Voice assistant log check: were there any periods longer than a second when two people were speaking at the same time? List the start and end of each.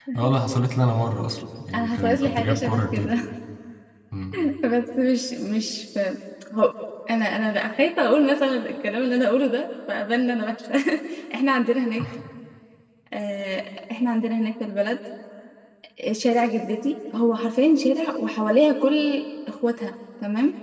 1.7-3.1

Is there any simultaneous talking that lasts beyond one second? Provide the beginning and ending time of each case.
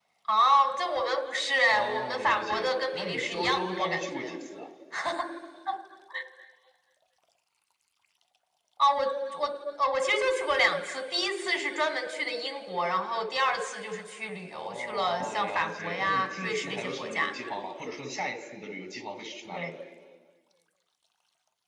1.7-4.4, 14.5-17.3

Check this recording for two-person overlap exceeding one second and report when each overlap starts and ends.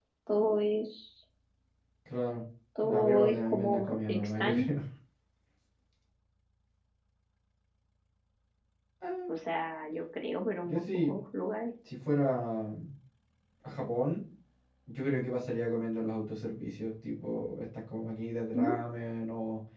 2.8-4.7

